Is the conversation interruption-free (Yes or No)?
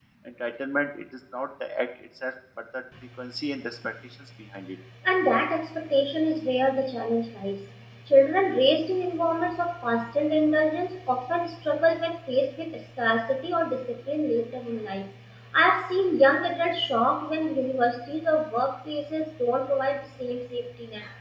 Yes